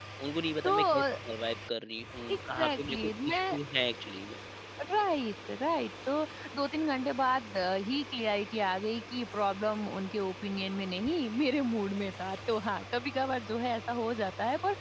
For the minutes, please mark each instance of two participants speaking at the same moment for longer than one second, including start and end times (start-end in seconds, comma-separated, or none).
2.4-3.6